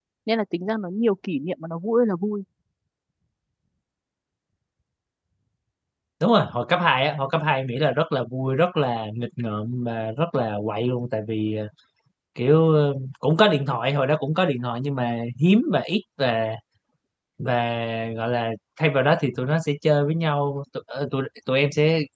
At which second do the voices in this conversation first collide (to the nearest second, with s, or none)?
none